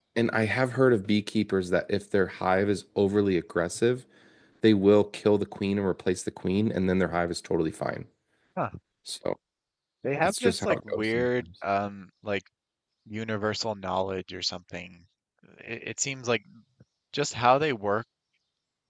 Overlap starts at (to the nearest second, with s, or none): 10 s